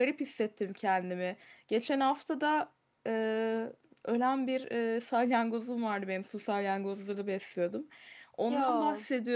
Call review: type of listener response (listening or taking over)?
listening